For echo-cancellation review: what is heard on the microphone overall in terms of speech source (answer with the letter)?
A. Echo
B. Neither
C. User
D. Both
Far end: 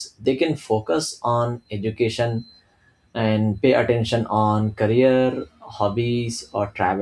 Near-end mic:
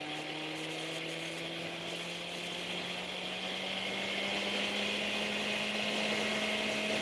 B